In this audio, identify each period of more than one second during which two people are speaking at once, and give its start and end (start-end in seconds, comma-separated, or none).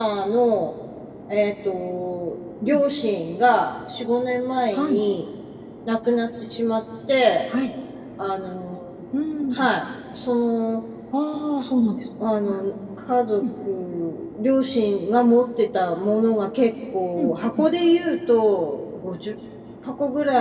none